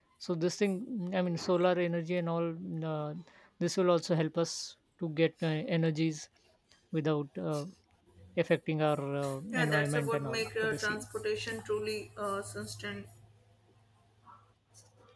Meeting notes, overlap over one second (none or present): present